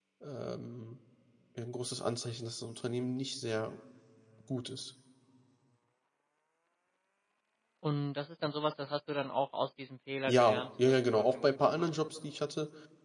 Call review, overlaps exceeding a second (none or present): present